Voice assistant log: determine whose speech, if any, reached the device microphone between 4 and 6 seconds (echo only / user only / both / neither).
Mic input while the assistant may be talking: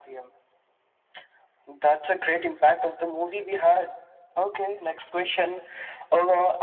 echo only